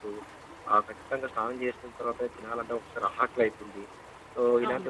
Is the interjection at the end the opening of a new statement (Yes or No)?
No